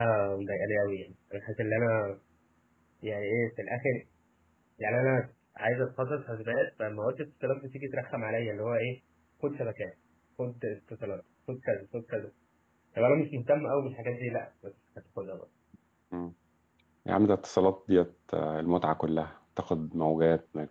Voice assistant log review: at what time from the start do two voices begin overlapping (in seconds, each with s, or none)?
none